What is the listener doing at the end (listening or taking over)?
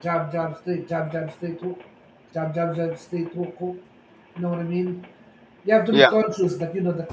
listening